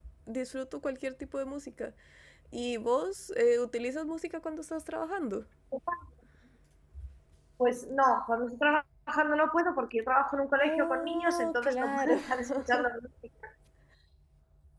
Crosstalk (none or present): present